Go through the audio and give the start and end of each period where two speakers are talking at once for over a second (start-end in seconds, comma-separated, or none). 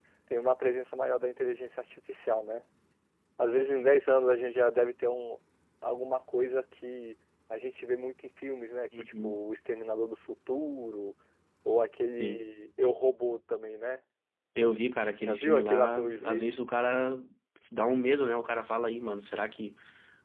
15.2-16.4